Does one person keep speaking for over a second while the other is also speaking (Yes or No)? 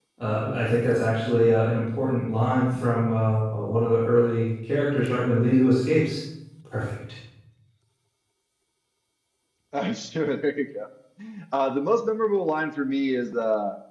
No